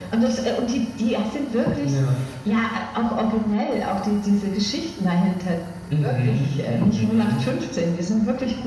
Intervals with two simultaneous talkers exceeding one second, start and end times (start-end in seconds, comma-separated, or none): 6.0-7.4